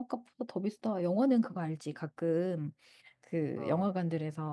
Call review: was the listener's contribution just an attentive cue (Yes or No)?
Yes